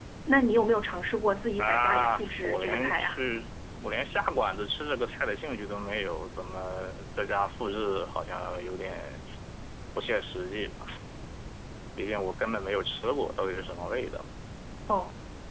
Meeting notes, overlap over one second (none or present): present